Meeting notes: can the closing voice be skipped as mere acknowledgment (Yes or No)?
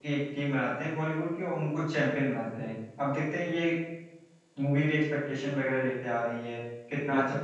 Yes